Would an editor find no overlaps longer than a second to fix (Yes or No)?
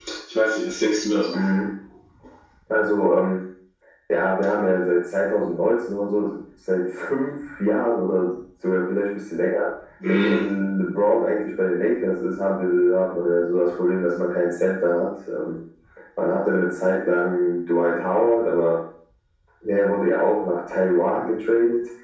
Yes